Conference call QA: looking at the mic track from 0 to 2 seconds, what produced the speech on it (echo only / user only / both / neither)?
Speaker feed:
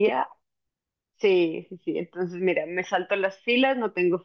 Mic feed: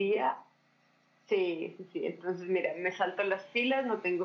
echo only